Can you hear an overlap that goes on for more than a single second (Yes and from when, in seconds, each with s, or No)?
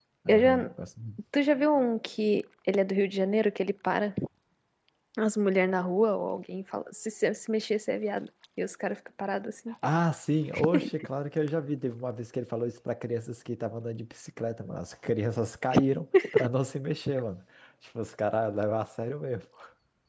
No